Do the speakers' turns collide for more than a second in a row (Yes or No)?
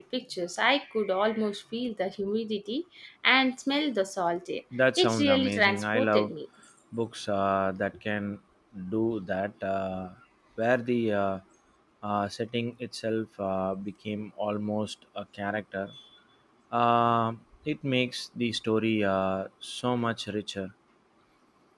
Yes